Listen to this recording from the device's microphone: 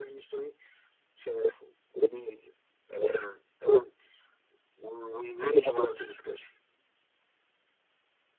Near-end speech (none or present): none